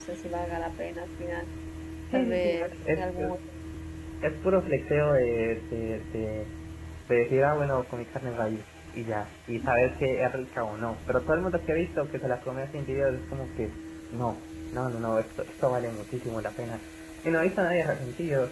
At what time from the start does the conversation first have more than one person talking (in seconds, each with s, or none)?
2.1 s